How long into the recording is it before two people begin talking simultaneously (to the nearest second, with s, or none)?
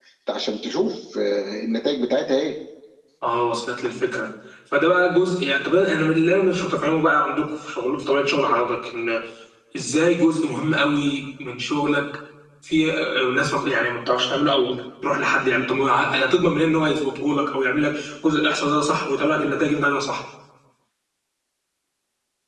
none